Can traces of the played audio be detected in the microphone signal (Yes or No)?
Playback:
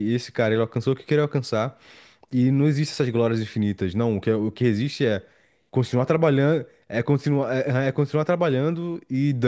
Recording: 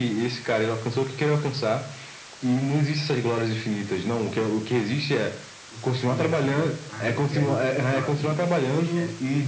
Yes